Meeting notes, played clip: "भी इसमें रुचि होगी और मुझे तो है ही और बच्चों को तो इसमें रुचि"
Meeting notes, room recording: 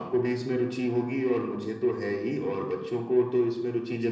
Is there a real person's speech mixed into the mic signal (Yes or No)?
No